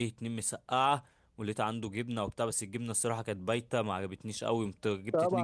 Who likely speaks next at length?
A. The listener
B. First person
A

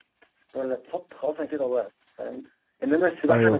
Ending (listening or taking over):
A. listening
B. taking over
A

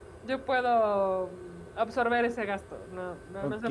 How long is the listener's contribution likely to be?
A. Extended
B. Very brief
A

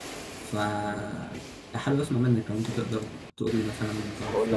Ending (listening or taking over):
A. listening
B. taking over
B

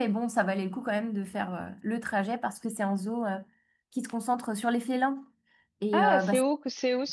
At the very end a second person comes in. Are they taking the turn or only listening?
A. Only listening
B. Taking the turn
B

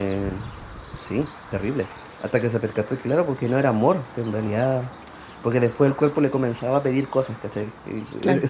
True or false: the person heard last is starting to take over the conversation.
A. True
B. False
B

